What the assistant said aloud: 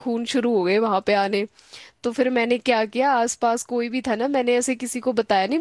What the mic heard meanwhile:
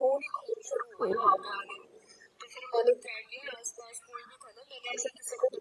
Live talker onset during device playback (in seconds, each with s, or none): 1.0 s